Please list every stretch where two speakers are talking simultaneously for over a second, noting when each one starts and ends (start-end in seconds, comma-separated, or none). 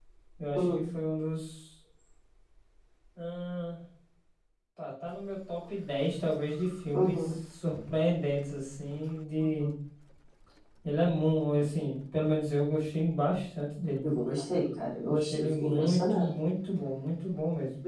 15.1-16.3